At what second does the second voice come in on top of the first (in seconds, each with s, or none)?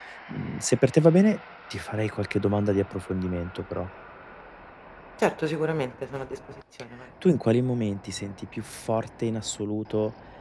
none